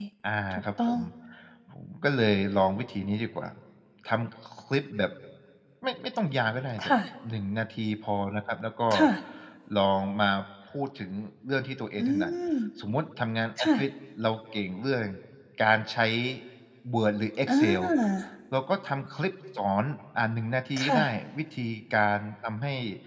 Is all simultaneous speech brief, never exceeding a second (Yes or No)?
Yes